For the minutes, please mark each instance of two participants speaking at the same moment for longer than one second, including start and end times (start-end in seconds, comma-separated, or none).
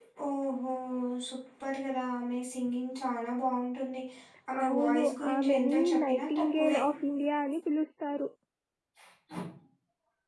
4.7-6.8